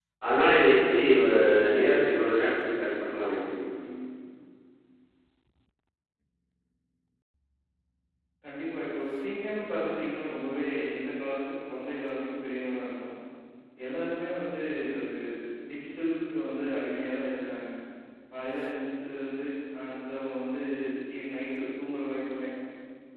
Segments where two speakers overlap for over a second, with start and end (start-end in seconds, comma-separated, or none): none